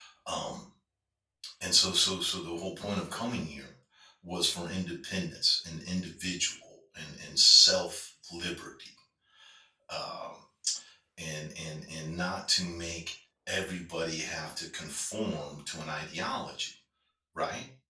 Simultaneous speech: No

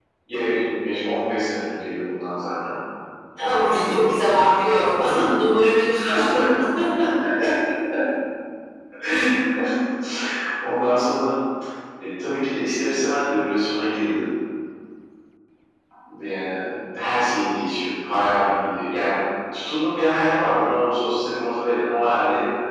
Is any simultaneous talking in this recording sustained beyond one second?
Yes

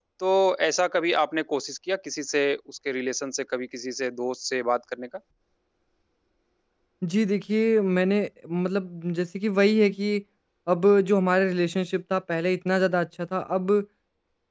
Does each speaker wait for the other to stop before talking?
Yes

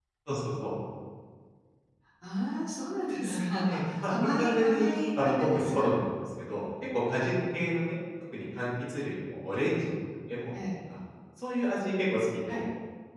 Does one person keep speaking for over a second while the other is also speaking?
Yes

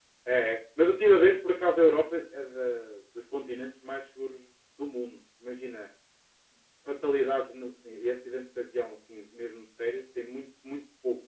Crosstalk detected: No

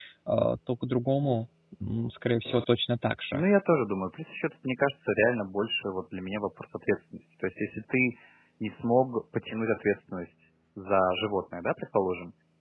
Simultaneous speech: No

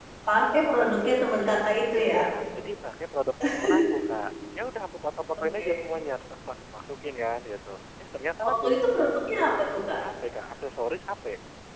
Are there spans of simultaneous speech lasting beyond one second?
No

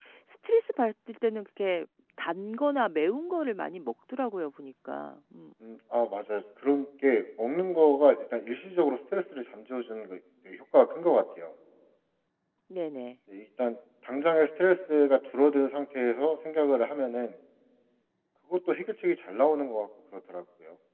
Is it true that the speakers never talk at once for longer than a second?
Yes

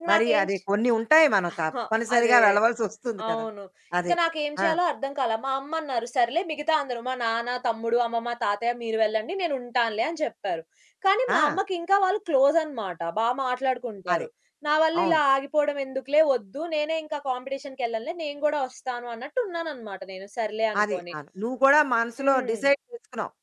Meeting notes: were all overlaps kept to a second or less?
Yes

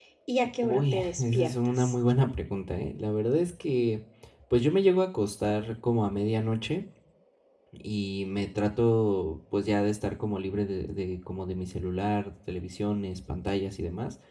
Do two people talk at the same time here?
Yes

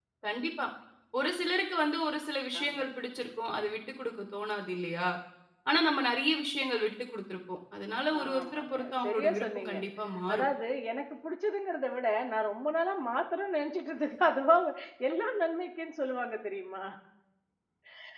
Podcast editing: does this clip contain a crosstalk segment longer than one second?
Yes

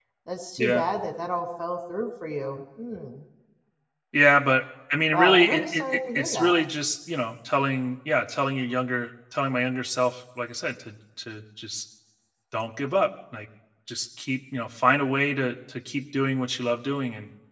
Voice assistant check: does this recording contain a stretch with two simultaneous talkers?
Yes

